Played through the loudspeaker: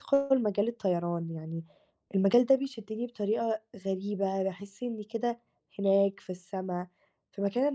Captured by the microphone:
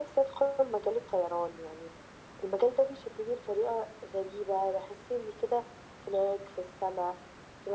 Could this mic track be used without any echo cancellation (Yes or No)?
No